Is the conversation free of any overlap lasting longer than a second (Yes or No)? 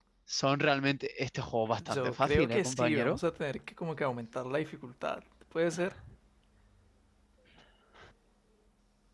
No